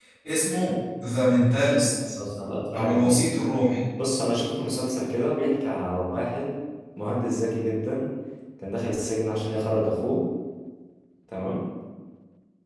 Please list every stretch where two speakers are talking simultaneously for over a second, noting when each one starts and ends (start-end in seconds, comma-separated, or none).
none